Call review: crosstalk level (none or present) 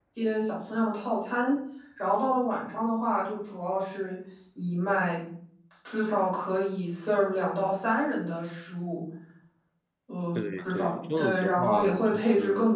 present